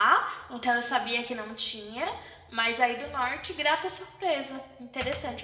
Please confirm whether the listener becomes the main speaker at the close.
Yes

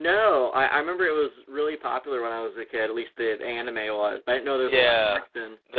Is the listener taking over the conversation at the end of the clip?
Yes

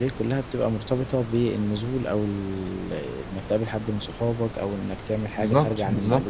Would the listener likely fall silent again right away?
No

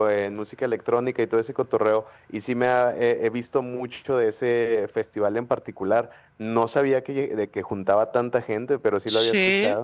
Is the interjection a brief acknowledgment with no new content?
No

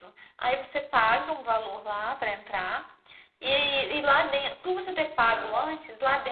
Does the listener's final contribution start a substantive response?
No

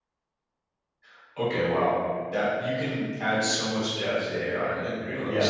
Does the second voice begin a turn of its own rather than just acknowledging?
Yes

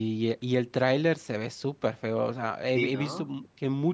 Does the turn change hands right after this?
No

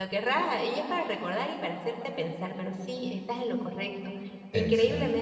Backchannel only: Yes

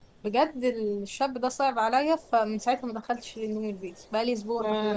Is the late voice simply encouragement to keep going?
No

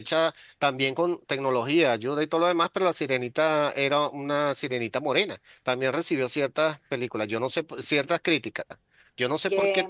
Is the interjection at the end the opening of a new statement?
No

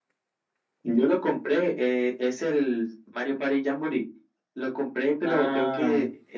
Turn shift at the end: No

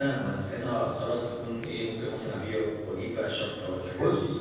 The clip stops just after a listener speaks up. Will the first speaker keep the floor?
No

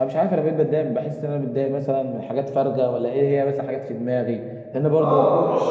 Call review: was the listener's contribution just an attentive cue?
No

